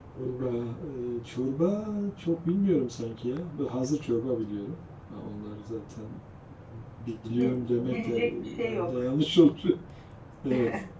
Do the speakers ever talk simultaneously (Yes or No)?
Yes